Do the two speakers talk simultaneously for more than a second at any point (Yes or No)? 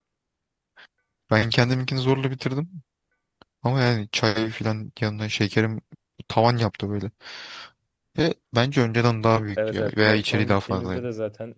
Yes